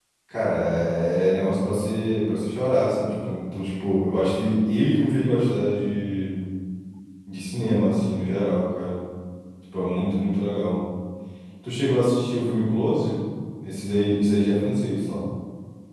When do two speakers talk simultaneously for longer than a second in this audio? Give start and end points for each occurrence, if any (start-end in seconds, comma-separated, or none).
none